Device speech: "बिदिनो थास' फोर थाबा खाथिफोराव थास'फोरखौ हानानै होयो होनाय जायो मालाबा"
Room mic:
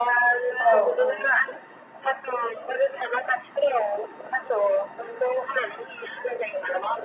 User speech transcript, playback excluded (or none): औ औ